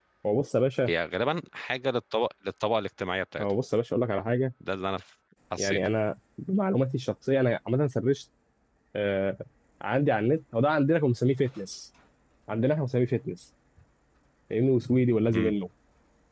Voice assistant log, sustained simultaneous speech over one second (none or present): none